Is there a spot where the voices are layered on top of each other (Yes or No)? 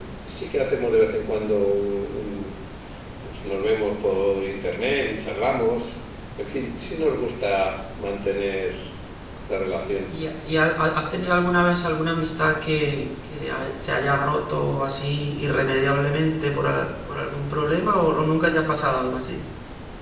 No